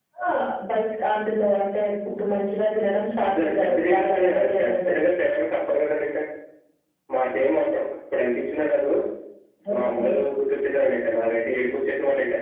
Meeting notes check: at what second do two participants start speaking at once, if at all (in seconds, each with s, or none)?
3.2 s